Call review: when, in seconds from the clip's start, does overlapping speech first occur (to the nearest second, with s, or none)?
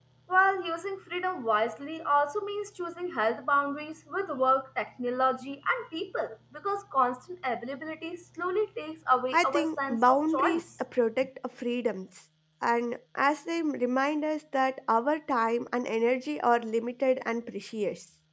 9 s